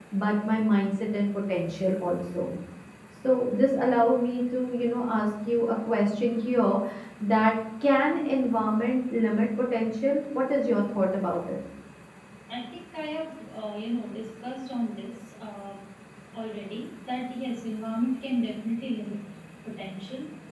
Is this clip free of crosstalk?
Yes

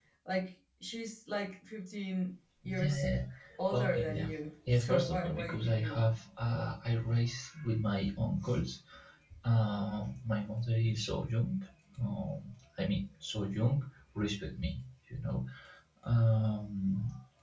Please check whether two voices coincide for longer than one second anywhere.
Yes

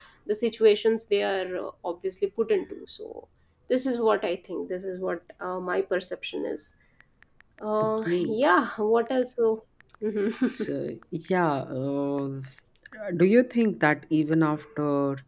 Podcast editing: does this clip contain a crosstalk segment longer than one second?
No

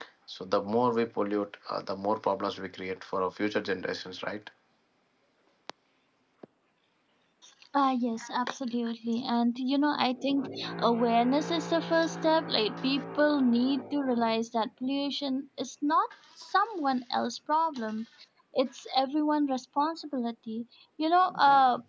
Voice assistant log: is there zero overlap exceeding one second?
Yes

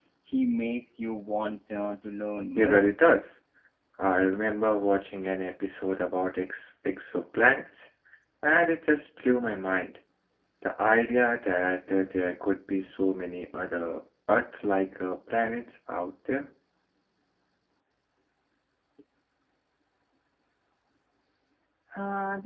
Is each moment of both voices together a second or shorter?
Yes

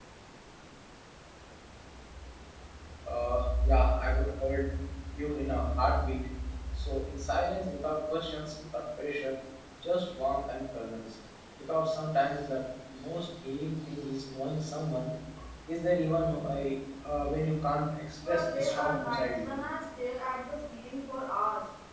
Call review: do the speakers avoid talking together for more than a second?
No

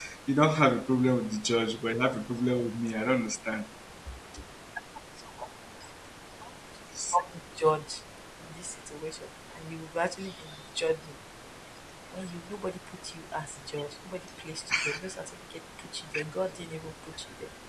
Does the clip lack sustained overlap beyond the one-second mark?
Yes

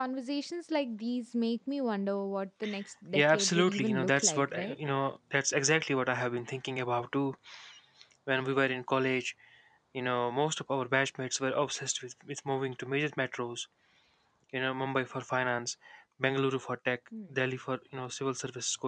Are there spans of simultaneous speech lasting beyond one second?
Yes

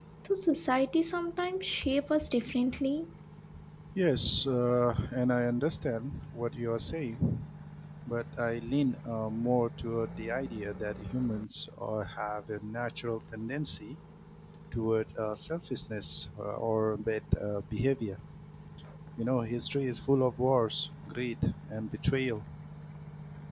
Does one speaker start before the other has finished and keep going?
No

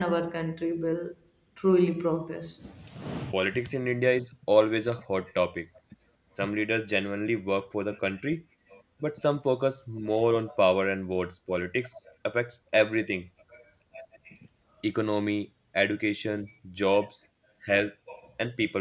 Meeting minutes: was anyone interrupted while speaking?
No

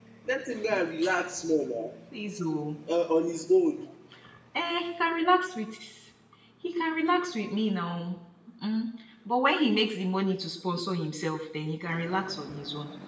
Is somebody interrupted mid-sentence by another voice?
No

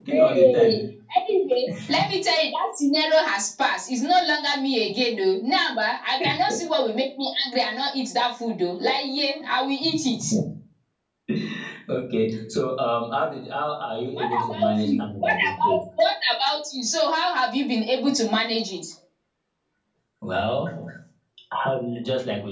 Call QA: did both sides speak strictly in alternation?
No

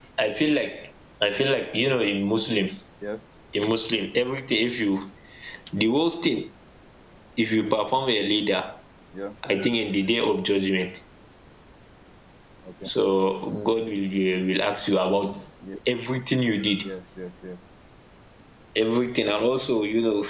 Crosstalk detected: No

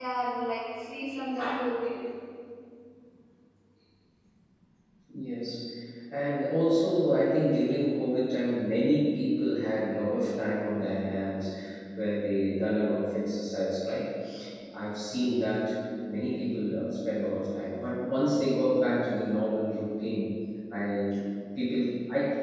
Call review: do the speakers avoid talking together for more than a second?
Yes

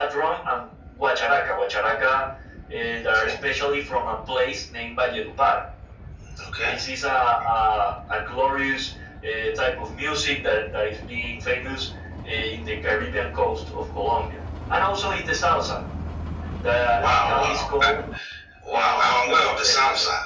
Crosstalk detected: Yes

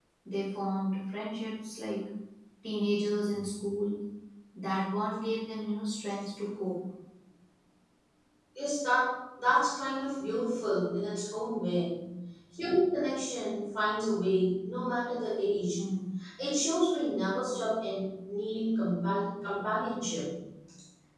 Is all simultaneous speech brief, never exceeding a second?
Yes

